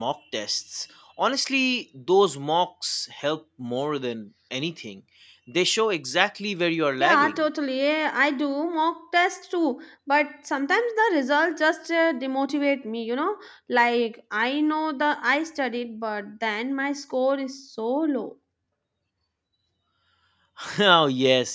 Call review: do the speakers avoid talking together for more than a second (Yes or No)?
Yes